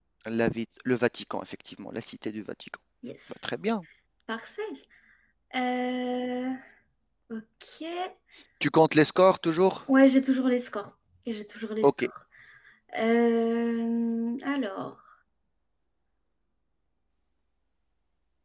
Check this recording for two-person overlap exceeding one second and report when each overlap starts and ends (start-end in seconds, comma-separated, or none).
none